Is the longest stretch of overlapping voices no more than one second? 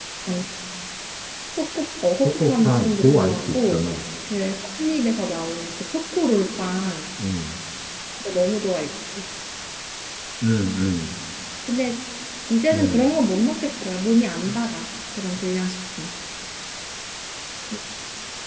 No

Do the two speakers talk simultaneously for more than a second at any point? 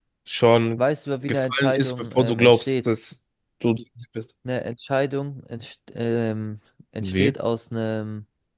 Yes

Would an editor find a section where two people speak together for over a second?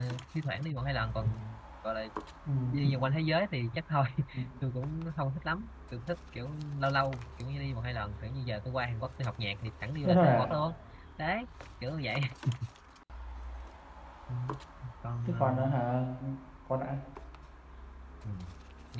No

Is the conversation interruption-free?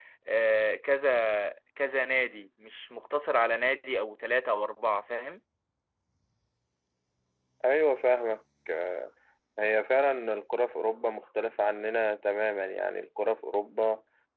Yes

